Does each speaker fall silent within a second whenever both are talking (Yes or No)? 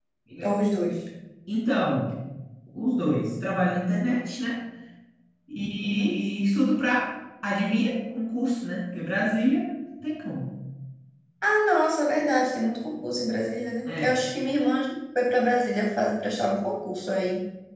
Yes